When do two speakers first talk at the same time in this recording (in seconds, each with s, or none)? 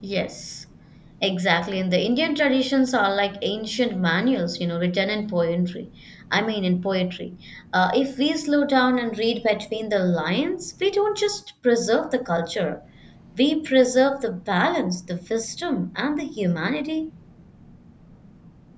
none